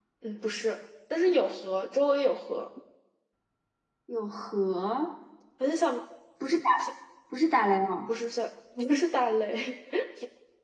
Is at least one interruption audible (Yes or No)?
No